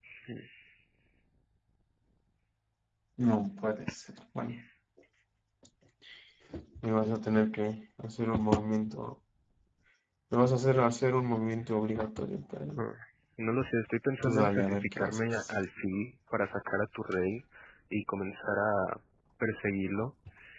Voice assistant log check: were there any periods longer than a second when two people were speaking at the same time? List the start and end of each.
14.2-15.5

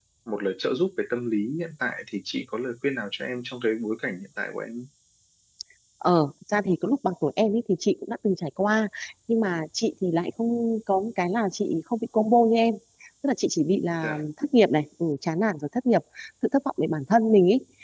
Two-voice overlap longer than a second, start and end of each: none

